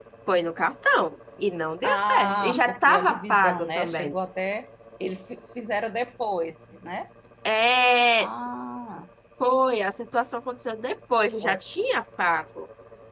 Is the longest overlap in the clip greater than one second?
Yes, from 1.8 s

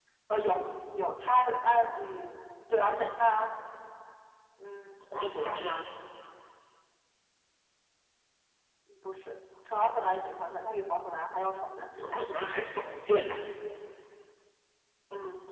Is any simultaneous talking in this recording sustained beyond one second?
No

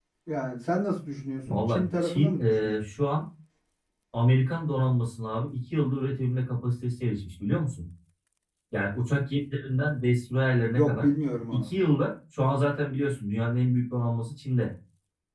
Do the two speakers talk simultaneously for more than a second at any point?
Yes, from 1.5 s

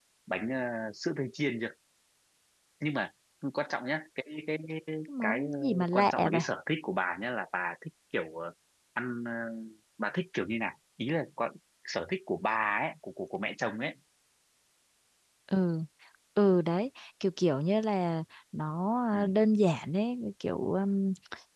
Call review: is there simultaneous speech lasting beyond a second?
Yes, from 5.2 s

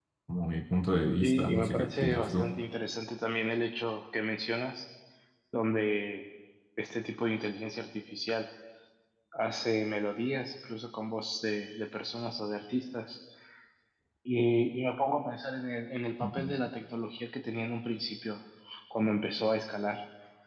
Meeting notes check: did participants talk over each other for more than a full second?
Yes, from 1.2 s

